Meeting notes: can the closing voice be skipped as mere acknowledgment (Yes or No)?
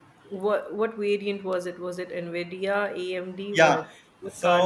No